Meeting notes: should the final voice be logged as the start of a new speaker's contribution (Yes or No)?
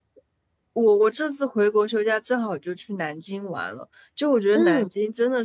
No